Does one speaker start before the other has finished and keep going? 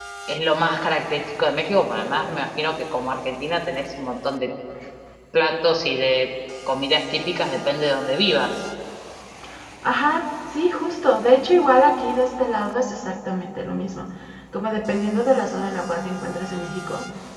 No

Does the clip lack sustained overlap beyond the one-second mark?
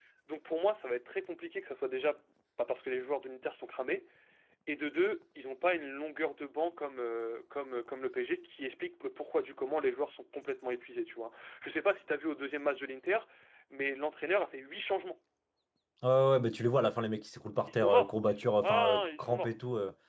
No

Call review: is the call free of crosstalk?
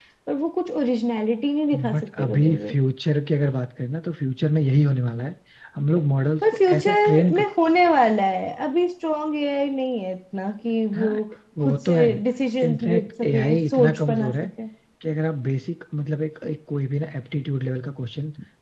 No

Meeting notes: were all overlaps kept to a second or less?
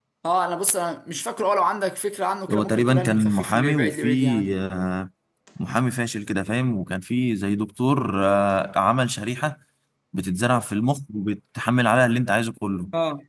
No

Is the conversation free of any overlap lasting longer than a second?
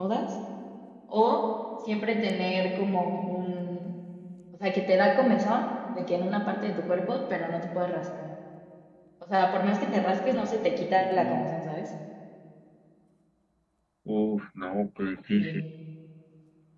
Yes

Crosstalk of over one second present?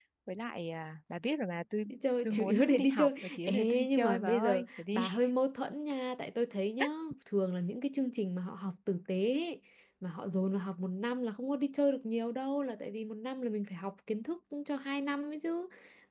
Yes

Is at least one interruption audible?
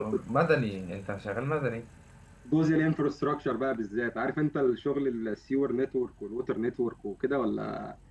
No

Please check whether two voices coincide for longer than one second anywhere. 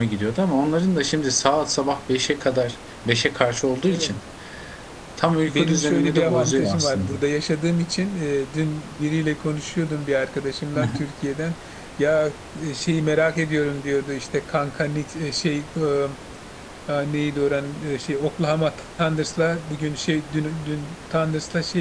Yes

